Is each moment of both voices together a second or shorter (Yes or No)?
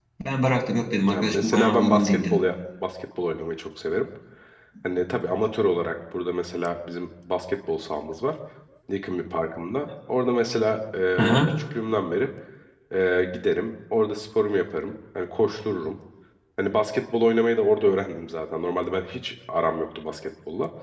No